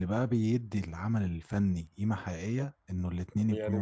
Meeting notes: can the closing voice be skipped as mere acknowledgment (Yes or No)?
No